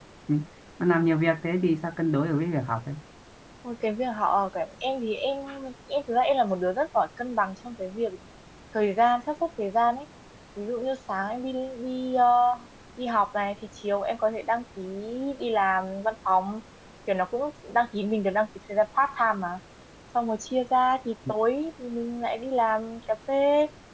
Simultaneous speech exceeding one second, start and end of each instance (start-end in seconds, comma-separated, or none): none